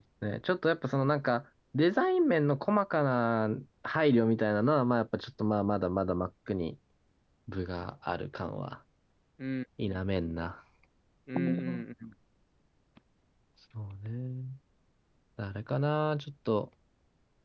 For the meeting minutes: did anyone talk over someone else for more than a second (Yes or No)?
No